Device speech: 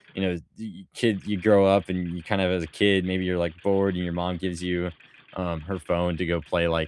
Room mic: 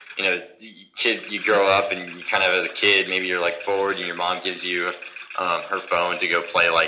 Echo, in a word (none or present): present